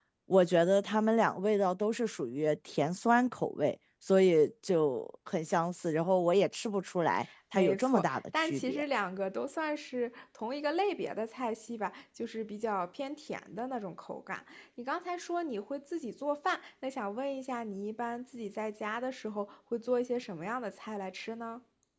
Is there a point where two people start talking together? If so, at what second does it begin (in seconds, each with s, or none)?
7.5 s